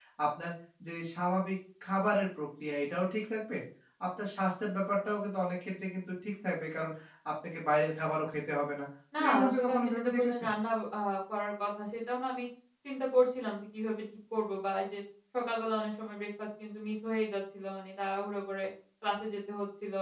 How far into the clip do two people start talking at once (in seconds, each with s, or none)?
9.1 s